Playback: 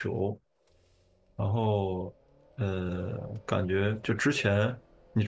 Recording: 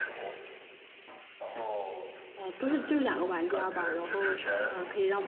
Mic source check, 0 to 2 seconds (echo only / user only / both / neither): echo only